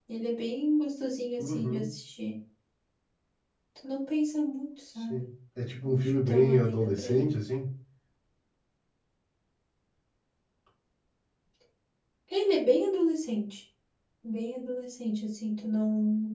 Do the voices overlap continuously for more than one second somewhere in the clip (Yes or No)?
Yes